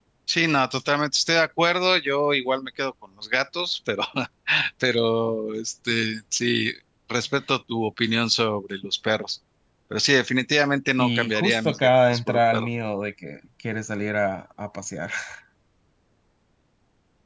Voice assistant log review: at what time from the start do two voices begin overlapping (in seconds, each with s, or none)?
11.0 s